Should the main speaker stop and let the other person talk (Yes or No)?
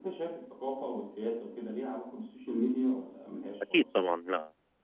Yes